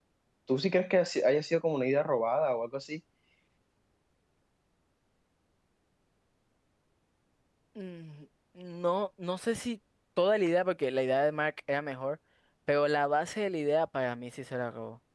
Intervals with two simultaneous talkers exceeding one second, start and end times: none

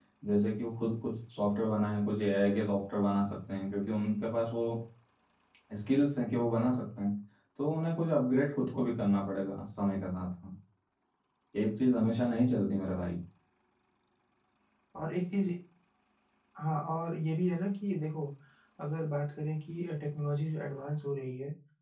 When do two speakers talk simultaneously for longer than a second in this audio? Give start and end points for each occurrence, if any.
none

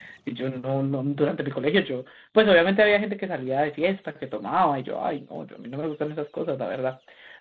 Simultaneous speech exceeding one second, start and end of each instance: none

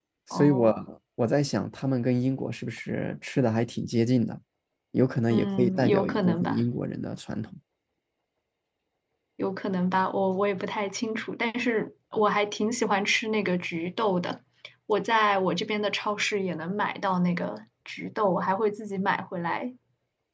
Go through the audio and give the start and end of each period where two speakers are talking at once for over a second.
5.3-6.6

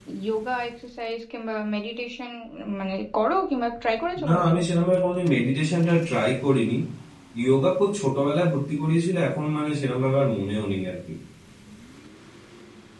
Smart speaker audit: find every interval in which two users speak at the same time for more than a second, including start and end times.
none

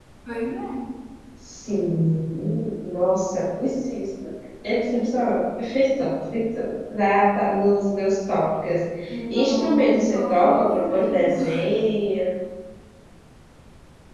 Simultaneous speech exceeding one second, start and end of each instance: 9.3-11.3

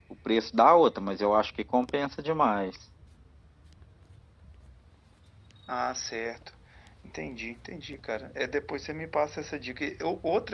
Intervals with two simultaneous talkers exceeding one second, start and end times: none

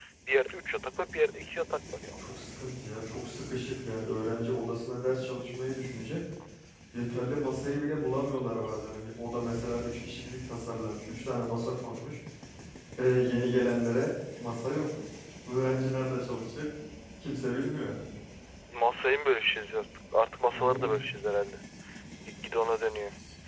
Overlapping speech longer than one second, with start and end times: none

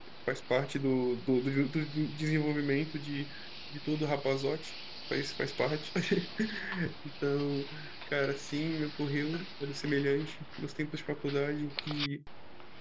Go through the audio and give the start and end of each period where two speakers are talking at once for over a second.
none

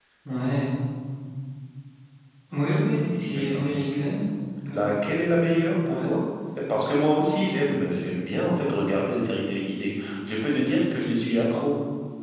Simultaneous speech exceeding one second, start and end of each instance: none

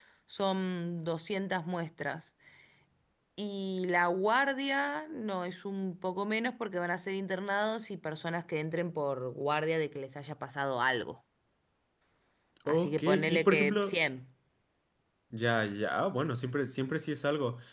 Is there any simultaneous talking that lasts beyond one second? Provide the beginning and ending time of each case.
12.7-14.0

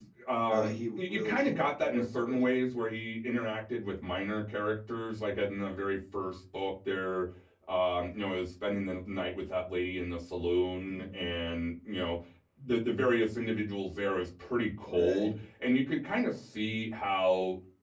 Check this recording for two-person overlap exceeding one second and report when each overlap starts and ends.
0.5-2.4

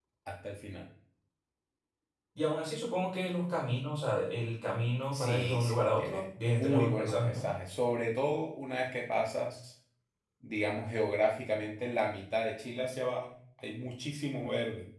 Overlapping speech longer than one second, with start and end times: 5.1-7.5

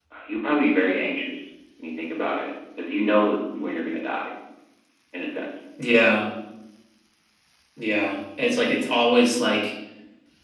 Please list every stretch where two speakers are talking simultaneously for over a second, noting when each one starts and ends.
none

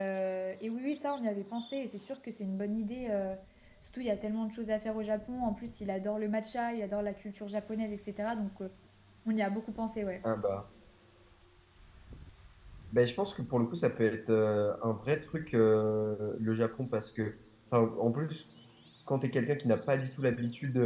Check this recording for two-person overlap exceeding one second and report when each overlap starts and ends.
none

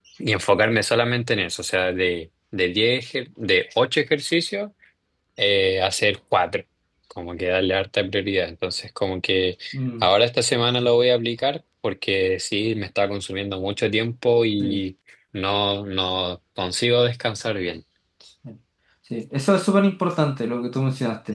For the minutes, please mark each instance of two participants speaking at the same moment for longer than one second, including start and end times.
none

